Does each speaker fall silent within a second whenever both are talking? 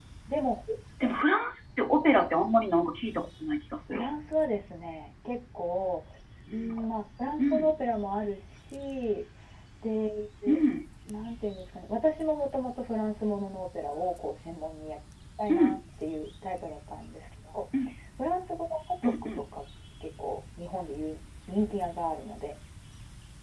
Yes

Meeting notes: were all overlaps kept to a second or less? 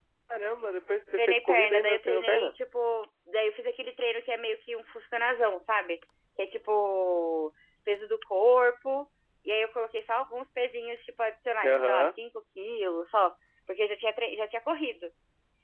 No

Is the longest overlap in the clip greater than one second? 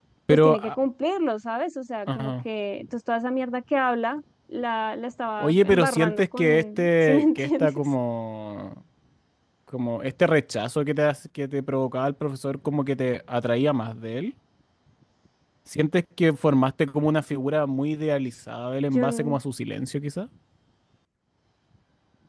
Yes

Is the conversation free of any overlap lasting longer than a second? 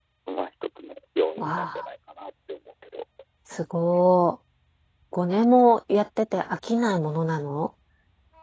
Yes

